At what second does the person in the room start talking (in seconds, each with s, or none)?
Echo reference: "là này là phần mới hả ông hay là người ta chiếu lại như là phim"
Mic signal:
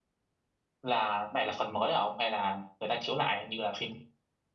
none